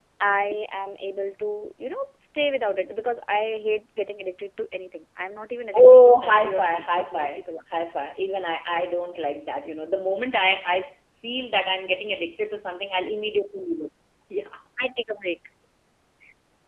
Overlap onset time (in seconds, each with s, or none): 5.7 s